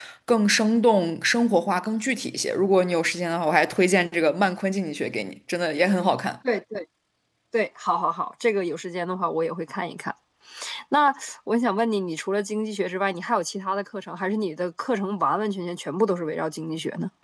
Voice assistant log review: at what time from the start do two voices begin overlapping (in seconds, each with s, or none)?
none